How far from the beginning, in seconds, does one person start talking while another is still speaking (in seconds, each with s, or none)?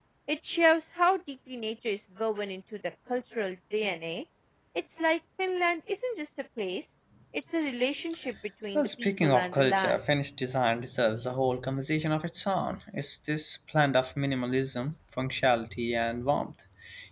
8.8 s